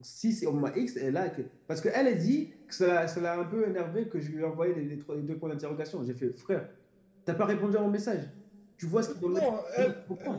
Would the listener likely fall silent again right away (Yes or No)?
No